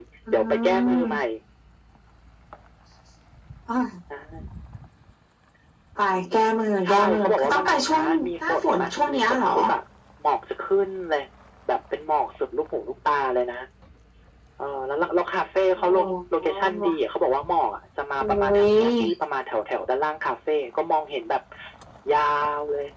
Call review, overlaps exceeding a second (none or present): present